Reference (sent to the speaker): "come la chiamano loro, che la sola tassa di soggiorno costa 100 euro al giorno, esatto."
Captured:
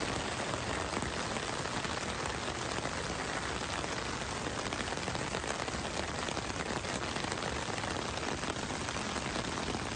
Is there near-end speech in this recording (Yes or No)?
No